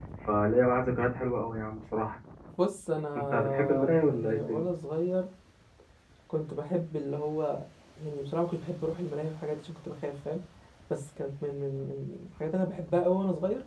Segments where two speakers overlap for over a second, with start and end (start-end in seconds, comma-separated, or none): 3.2-4.6